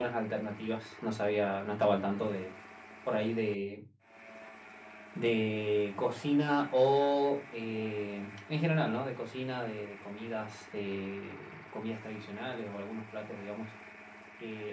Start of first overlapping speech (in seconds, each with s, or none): none